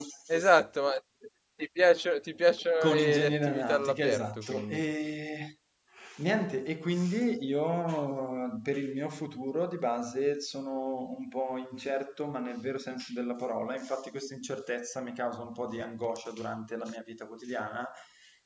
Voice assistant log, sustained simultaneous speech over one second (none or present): present